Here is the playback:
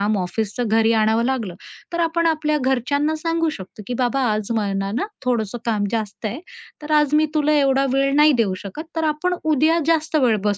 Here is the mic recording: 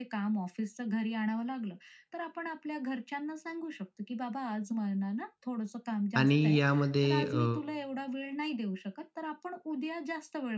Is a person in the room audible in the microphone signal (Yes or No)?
Yes